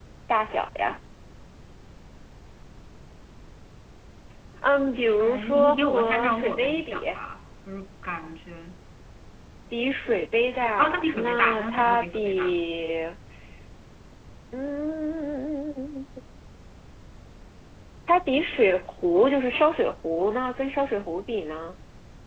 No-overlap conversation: No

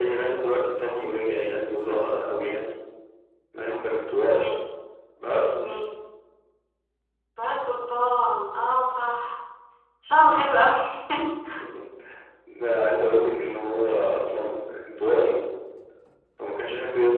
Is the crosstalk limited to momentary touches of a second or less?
Yes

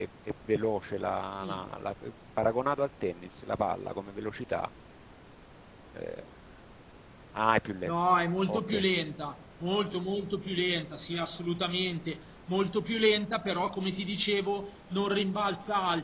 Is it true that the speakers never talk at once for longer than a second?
Yes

